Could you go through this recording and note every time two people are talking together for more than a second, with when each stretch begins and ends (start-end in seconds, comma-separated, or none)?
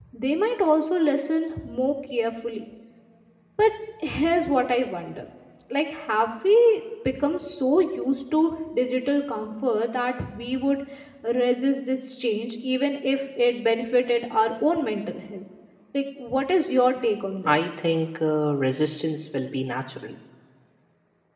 none